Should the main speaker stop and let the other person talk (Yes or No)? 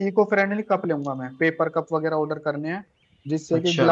No